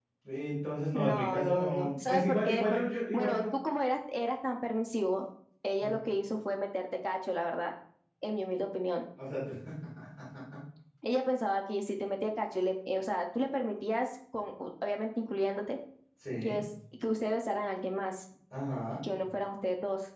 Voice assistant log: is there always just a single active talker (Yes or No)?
No